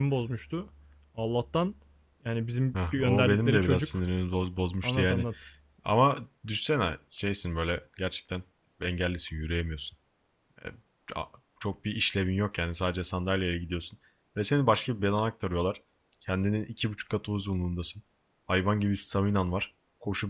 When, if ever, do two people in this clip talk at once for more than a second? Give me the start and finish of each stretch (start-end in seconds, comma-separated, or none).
2.7-4.0